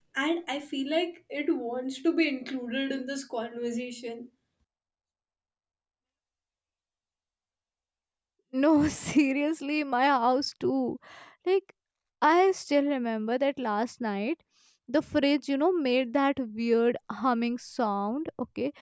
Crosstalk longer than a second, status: none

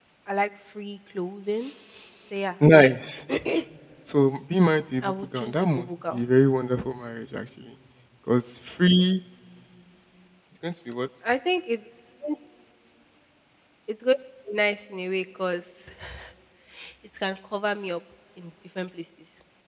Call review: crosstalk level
present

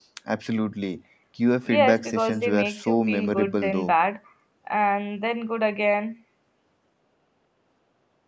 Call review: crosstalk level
present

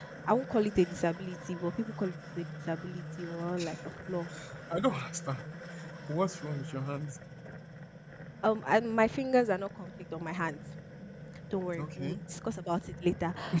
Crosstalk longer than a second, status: none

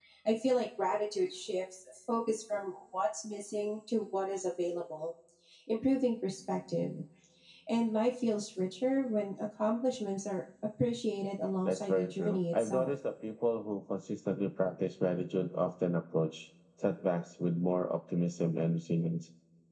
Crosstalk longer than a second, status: present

